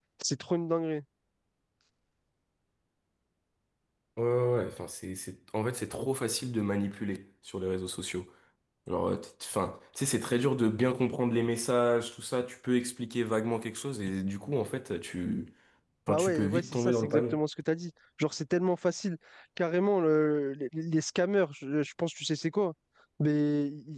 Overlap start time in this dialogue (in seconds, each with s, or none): 16.1 s